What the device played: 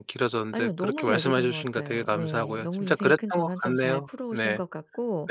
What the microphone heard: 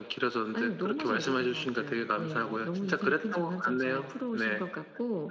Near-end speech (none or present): none